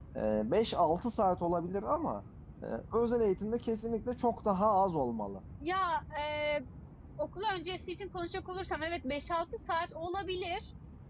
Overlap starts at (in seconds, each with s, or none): none